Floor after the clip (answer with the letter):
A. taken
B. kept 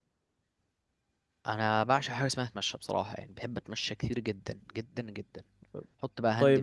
B